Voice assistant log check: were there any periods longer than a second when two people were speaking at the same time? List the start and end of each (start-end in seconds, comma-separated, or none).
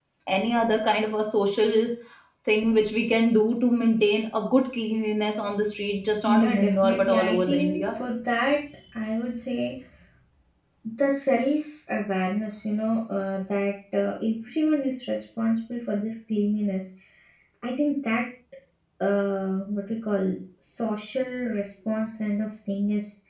6.2-7.9